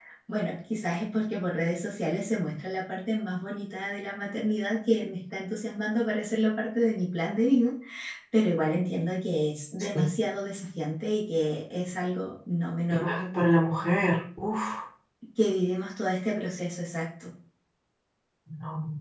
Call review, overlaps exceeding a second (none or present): none